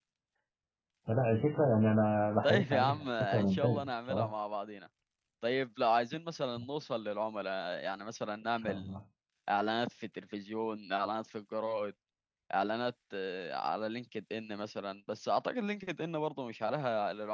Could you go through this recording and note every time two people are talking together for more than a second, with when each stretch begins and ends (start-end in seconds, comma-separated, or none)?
2.4-4.3